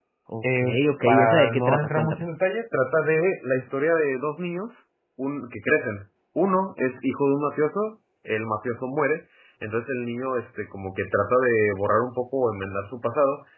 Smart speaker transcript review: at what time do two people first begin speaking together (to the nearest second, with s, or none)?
1 s